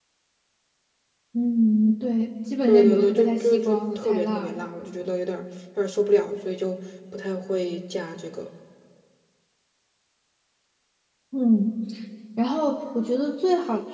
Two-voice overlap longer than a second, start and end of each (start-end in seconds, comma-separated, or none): 2.7-4.7